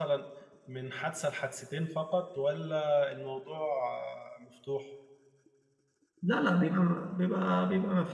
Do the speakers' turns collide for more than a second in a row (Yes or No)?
No